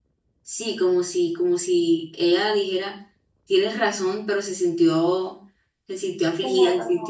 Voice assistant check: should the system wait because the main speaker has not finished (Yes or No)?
Yes